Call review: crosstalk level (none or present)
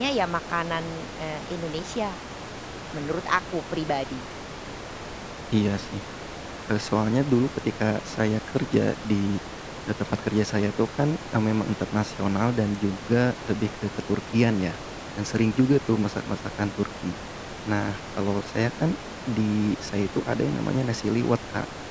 none